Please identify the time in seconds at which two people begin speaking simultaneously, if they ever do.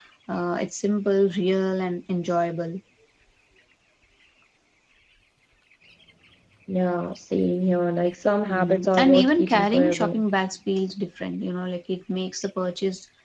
8.5 s

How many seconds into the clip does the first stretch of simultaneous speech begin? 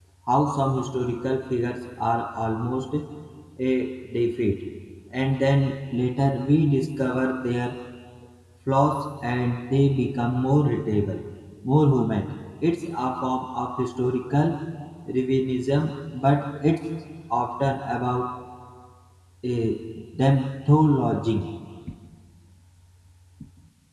none

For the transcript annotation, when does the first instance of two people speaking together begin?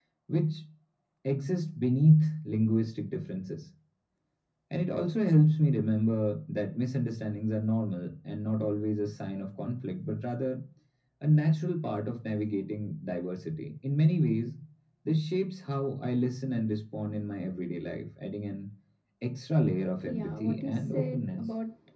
20.0 s

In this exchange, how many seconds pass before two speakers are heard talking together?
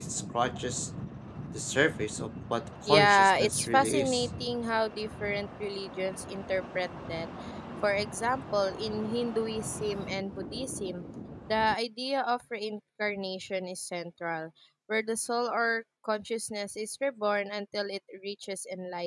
2.9 s

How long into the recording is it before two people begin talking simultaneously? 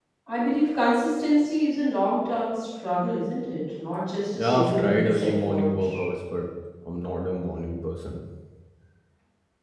4.4 s

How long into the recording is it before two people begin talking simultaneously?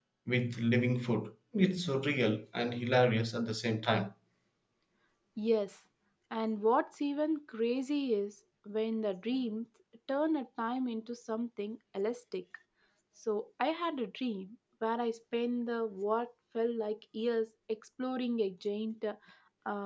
none

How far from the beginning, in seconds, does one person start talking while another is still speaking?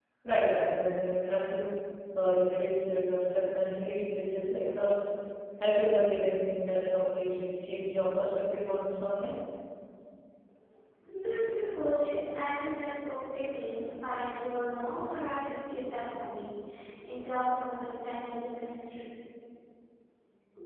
none

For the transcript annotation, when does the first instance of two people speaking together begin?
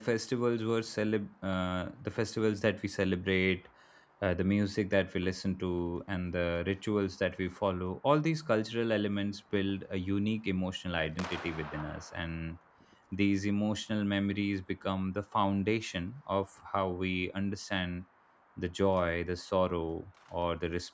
none

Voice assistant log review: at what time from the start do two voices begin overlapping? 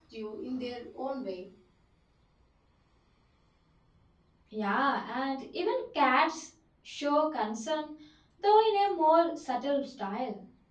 none

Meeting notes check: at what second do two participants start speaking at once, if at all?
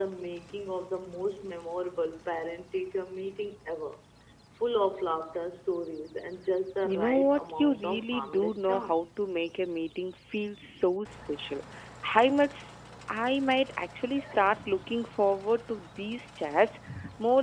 6.8 s

